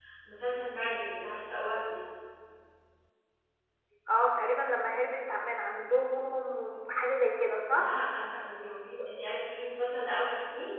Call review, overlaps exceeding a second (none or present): none